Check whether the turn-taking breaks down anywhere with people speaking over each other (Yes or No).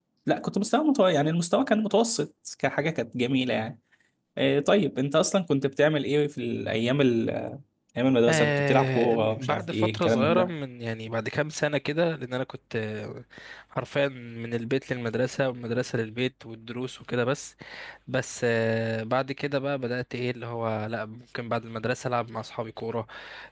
Yes